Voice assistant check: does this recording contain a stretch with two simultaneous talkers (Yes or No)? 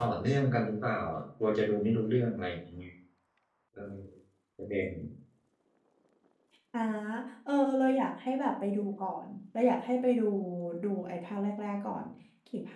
No